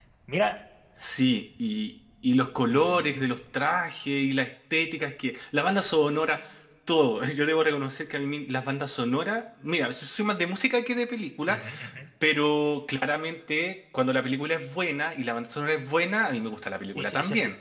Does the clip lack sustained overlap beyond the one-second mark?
Yes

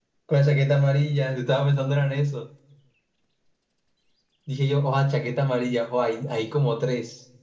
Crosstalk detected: No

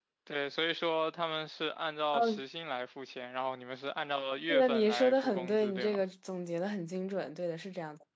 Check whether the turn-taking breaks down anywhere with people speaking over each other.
Yes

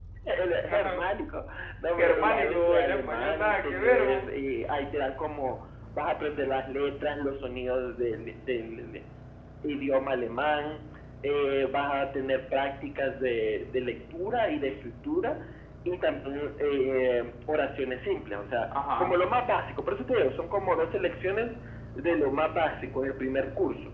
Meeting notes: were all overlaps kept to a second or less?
No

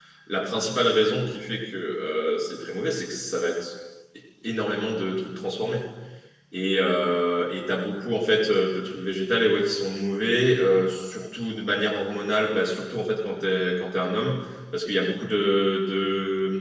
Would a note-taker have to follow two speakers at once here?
No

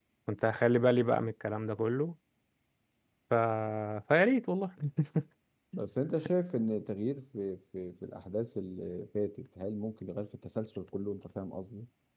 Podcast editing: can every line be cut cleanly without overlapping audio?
Yes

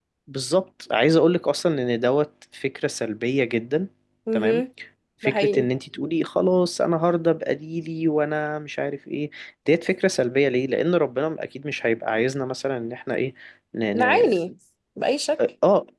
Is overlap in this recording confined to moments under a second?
Yes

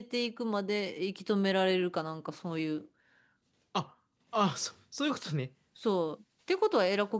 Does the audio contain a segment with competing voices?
No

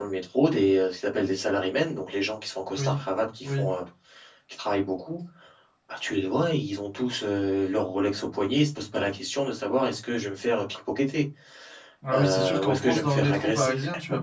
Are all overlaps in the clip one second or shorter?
No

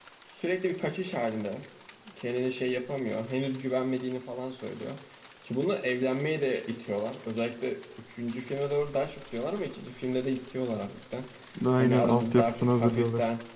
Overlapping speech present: Yes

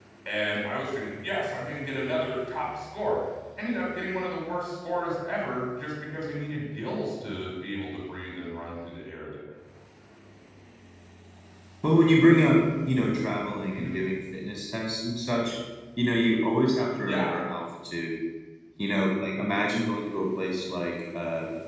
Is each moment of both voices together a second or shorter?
Yes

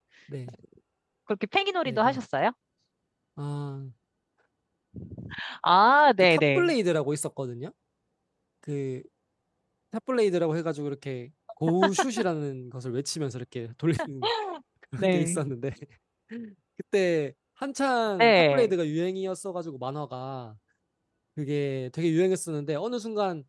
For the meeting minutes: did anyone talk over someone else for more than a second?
No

